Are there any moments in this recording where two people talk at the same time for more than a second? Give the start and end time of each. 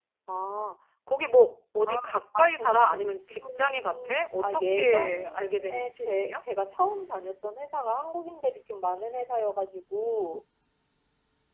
2.4-6.4

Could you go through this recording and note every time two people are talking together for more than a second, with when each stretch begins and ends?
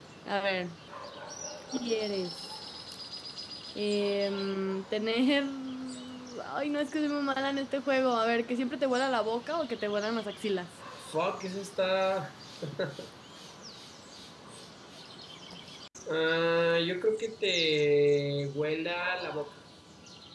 none

